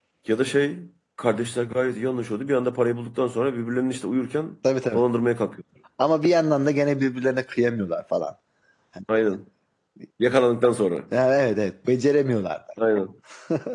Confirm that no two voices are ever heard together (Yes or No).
Yes